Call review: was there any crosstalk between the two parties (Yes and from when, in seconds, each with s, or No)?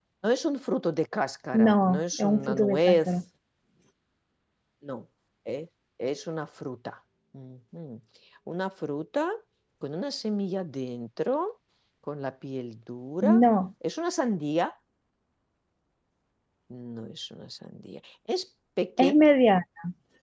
Yes, from 1.5 s